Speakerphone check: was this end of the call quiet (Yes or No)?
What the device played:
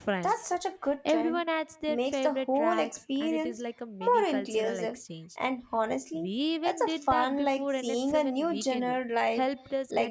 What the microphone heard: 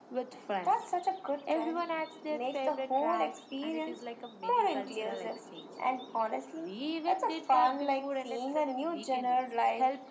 Yes